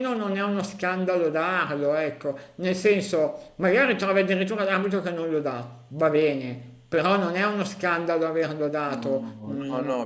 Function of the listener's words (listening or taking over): taking over